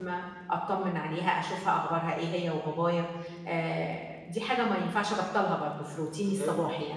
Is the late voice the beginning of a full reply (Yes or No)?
Yes